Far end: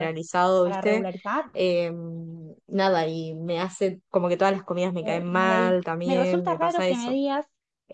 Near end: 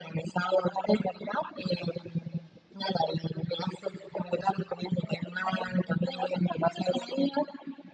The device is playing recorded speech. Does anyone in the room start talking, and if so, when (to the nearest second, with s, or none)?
none